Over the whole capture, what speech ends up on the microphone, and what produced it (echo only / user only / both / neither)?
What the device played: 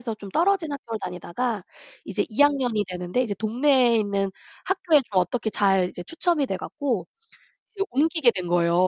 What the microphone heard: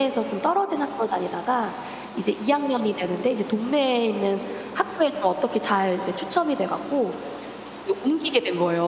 echo only